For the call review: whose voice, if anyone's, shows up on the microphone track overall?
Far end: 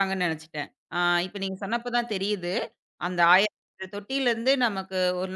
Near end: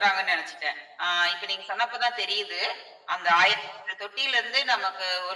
echo only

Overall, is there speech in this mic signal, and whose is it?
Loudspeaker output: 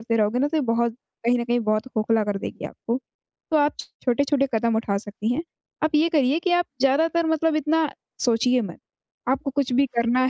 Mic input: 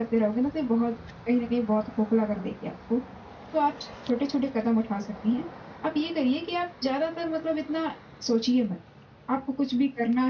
echo only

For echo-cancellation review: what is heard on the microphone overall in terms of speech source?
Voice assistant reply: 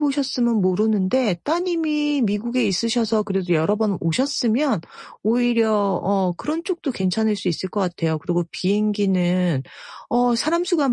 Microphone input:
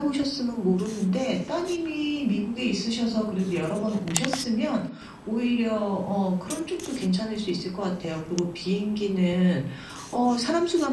echo only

